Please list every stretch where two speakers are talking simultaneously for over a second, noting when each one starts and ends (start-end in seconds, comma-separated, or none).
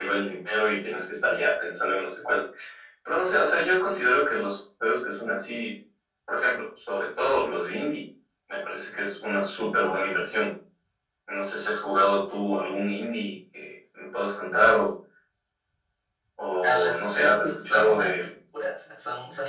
16.6-18.1